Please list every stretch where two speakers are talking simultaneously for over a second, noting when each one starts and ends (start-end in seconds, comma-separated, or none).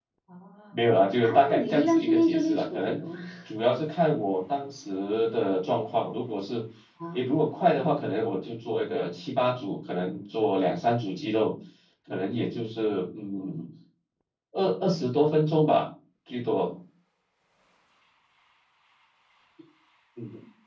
1.2-3.0